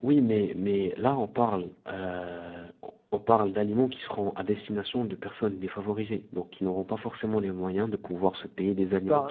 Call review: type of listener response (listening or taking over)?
taking over